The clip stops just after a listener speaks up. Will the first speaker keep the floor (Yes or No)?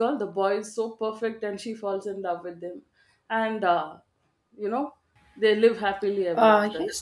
No